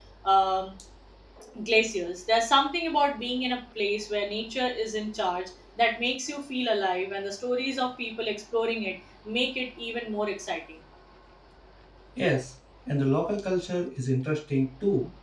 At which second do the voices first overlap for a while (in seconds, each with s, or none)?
none